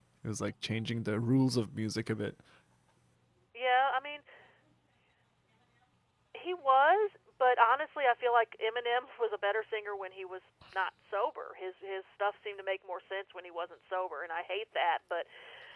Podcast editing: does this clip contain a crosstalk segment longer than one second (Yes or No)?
No